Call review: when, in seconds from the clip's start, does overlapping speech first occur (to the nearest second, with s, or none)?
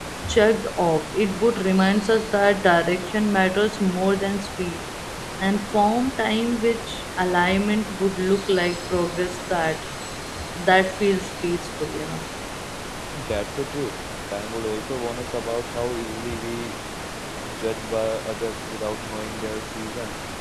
none